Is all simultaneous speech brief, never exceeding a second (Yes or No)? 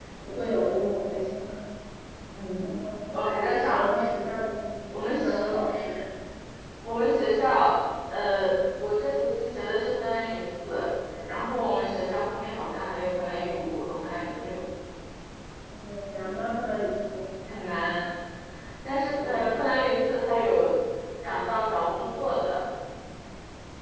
Yes